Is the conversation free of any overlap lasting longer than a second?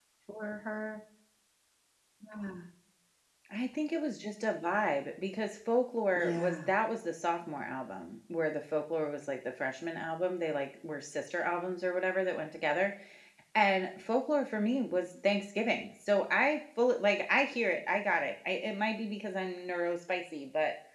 Yes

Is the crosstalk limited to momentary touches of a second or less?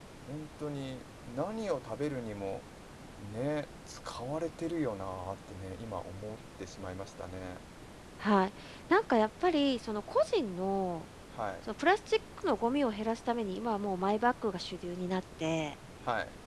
Yes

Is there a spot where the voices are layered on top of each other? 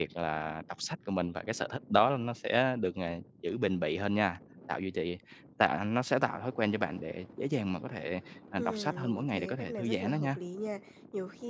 Yes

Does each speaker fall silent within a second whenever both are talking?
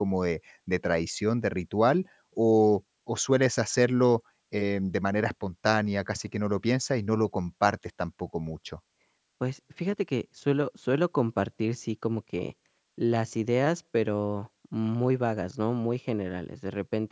Yes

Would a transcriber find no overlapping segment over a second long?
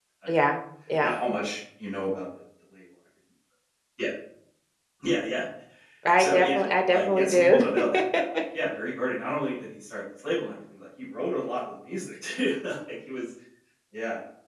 No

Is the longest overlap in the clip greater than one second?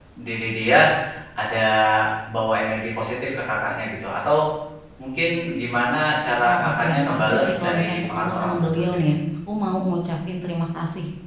Yes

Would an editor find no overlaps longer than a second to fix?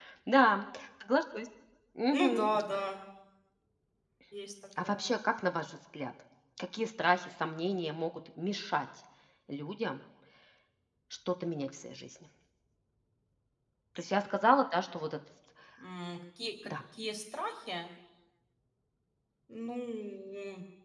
Yes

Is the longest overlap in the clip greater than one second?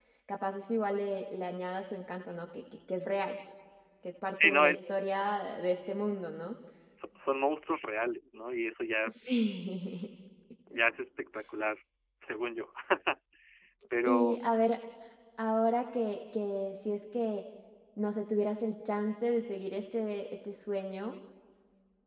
No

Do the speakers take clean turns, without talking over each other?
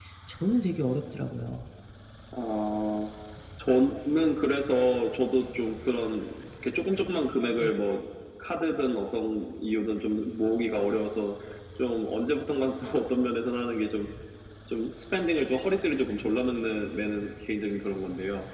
Yes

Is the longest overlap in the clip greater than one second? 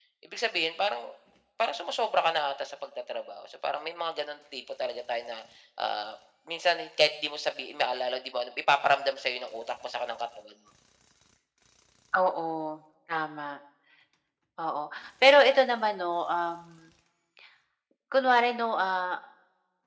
No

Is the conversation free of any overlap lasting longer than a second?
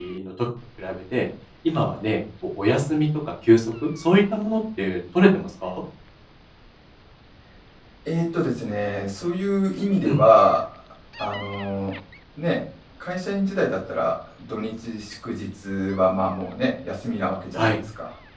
Yes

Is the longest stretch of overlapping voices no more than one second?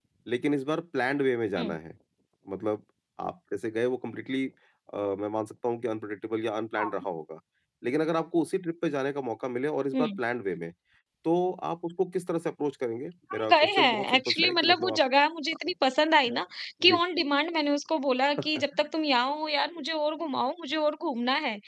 No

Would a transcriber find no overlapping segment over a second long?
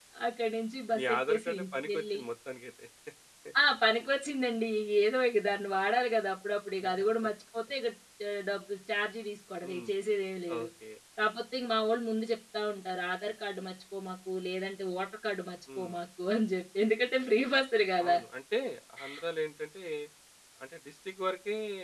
No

